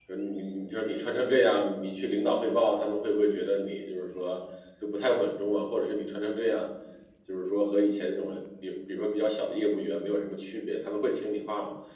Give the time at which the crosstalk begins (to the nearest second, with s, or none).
none